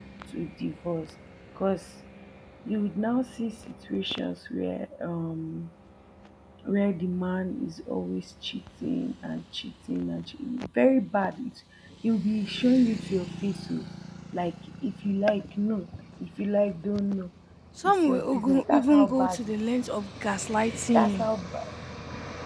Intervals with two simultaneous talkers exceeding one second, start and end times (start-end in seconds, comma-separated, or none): 17.8-19.9